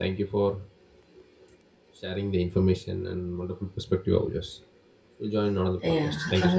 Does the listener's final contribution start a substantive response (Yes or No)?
Yes